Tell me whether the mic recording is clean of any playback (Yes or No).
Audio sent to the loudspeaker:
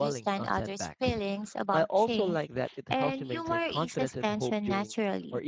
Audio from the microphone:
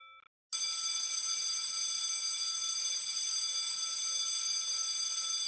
Yes